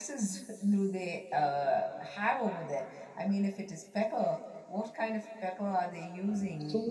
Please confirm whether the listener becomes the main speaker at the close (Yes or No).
Yes